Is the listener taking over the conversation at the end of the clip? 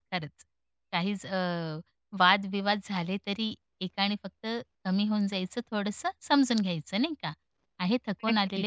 No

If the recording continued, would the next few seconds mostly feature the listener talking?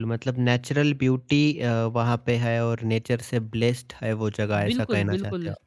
Yes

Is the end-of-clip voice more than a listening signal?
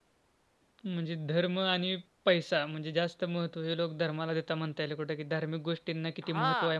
Yes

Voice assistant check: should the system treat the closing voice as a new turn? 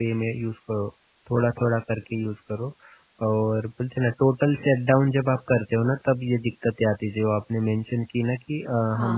Yes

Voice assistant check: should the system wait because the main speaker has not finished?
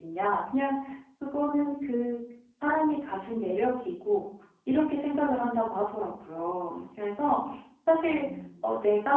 Yes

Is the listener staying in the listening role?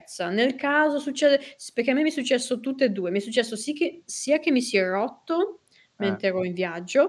Yes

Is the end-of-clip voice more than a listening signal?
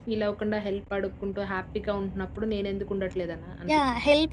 Yes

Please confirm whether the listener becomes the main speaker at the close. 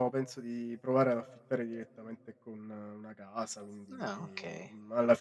No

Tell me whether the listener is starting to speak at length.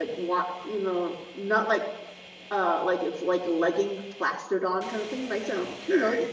Yes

